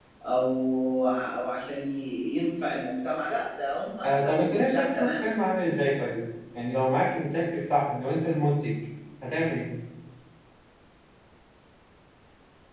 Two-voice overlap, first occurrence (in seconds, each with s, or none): 4.0 s